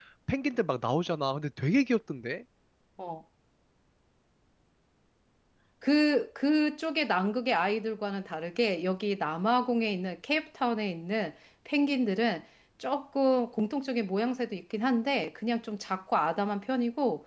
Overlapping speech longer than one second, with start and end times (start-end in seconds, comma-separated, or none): none